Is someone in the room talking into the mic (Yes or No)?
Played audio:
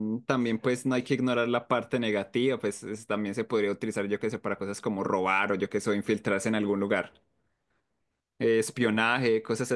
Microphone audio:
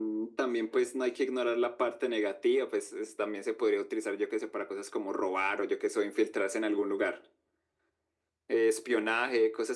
No